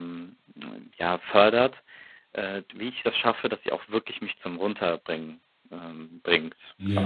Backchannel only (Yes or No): No